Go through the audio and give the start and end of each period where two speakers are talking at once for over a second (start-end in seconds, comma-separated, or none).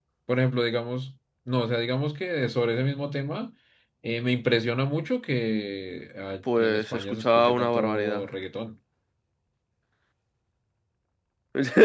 6.6-8.3